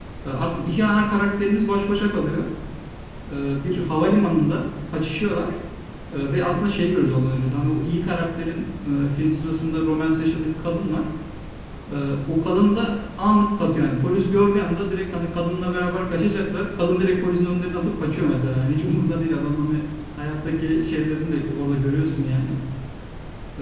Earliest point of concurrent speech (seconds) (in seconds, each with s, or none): none